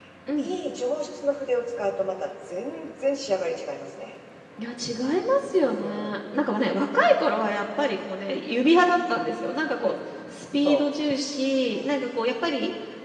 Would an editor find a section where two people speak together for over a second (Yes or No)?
No